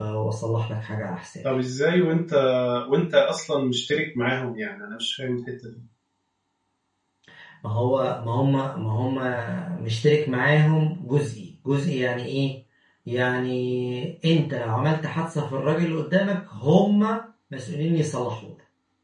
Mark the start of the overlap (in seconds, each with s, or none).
none